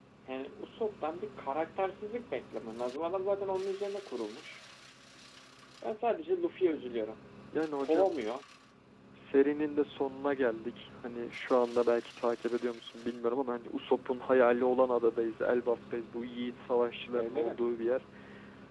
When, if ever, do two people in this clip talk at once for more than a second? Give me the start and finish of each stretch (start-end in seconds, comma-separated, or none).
none